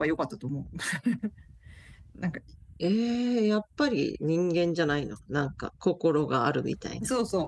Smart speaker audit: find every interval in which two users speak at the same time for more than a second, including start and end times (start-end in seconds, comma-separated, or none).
none